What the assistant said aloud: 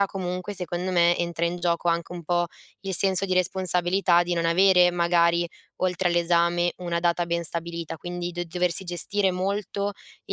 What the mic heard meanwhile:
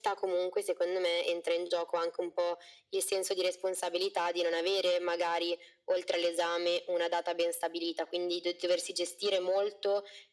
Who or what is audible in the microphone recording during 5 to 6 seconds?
echo only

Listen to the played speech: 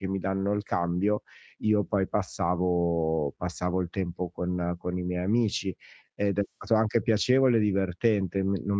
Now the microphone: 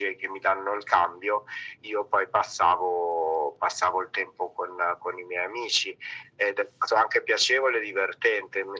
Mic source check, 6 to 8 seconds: echo only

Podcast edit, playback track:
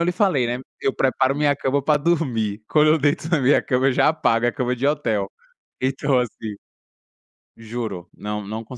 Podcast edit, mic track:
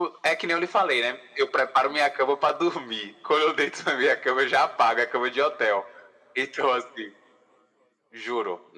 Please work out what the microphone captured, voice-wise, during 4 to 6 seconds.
echo only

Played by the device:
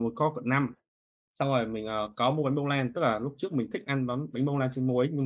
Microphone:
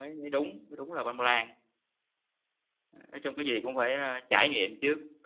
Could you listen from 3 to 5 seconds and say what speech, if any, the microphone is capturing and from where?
user only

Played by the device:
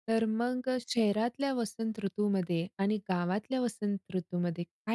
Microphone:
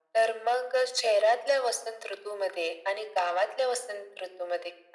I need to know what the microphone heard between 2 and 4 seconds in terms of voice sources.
echo only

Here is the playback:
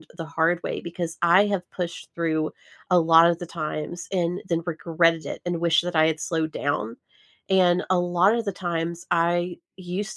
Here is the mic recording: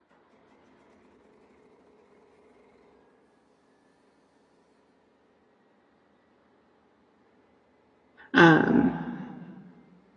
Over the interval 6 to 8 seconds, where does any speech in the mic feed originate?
neither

